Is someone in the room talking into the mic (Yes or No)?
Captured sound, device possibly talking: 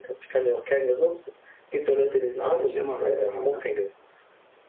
Yes